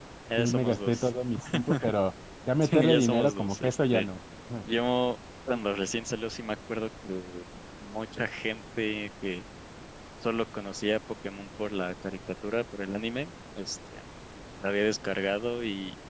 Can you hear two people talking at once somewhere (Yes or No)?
Yes